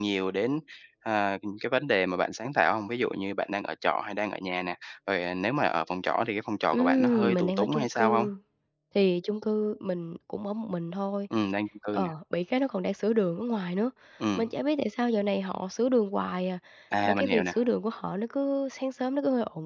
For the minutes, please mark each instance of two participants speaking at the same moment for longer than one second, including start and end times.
6.7-8.3

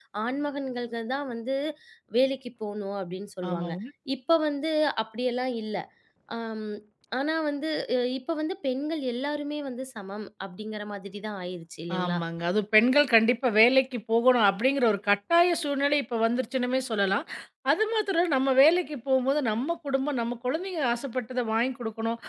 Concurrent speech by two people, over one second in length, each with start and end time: none

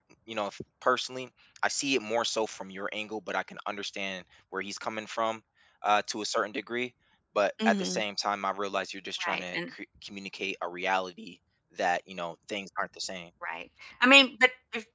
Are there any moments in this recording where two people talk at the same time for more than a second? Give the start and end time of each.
none

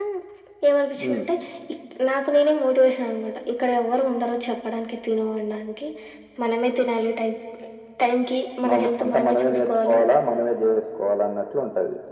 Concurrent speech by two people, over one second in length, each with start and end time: 8.7-10.0

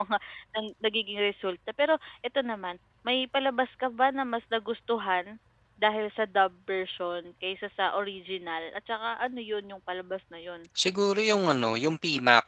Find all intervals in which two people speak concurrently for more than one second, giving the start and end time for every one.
none

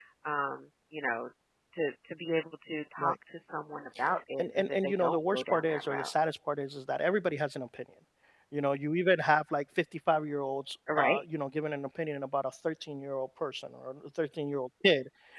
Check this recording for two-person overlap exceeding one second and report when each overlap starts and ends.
4.4-6.1

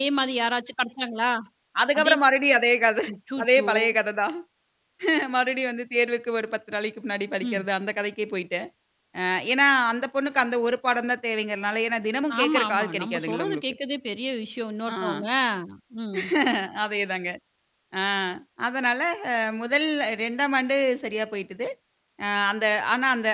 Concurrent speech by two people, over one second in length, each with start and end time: 12.4-13.6

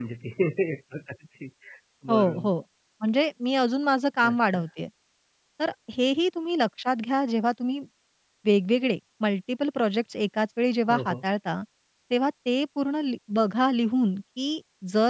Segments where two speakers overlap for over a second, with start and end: none

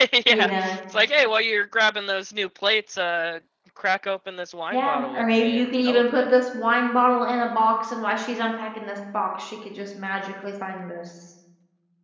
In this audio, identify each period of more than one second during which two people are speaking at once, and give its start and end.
4.7-6.3

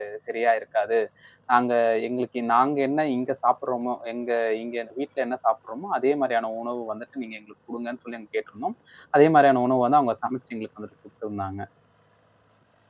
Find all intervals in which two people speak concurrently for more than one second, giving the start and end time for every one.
none

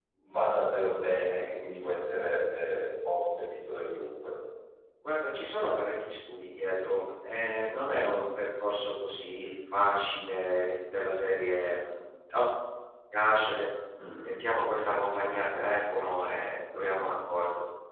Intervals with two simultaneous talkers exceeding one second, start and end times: none

